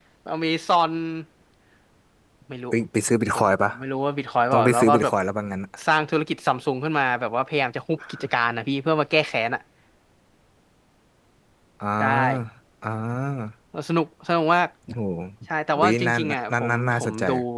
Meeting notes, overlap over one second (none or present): present